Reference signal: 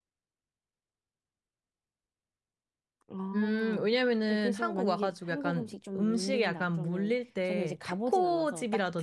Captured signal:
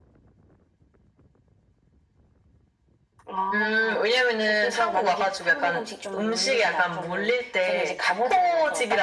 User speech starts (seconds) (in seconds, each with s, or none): none